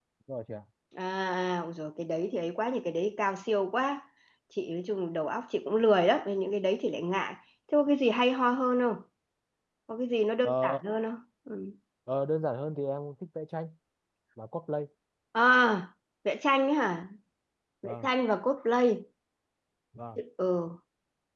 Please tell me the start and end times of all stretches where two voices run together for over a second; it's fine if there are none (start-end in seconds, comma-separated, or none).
none